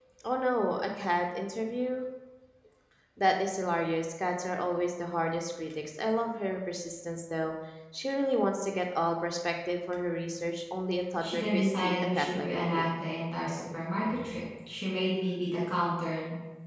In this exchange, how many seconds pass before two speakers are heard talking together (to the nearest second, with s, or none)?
11 s